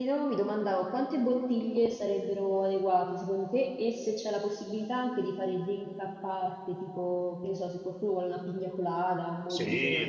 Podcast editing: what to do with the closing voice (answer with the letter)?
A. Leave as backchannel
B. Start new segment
B